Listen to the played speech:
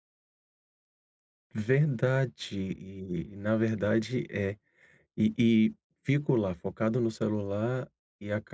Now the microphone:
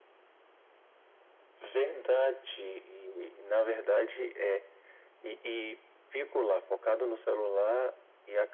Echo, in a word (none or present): present